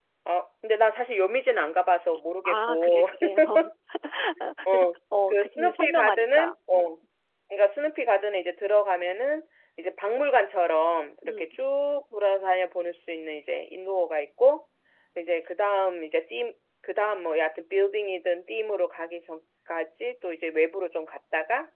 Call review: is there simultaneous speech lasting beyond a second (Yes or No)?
Yes